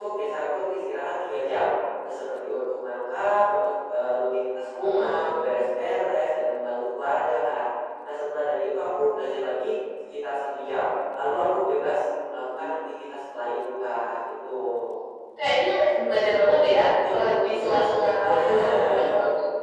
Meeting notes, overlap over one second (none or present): present